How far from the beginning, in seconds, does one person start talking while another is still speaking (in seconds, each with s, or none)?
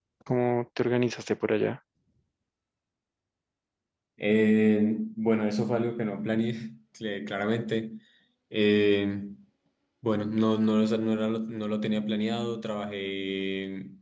none